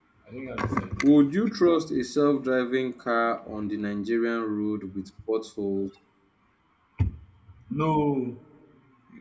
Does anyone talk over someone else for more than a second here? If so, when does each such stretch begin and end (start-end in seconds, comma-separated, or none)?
none